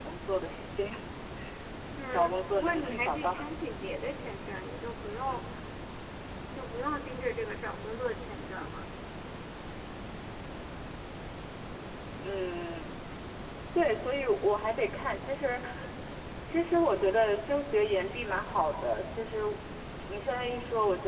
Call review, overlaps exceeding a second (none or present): present